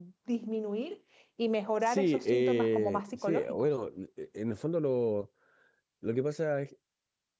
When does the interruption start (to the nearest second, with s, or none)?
2 s